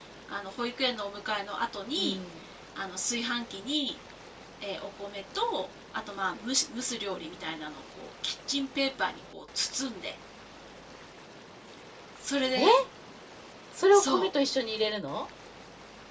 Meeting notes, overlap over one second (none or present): none